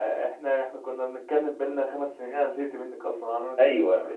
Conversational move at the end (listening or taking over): taking over